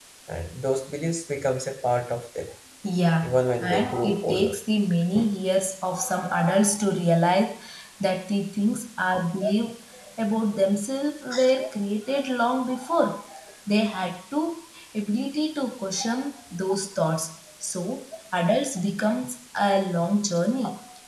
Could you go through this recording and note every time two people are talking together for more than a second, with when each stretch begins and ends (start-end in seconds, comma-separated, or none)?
3.2-4.5